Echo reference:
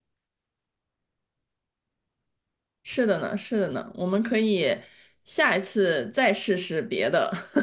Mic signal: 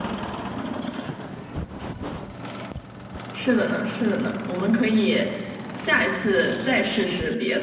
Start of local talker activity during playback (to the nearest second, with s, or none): none